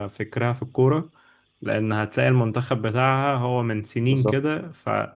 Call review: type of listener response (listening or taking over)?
listening